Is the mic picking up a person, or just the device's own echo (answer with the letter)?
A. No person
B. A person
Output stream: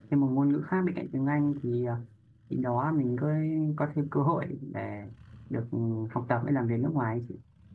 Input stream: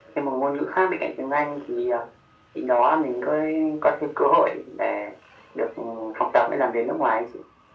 A